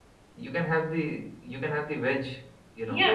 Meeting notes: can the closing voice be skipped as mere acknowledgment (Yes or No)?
No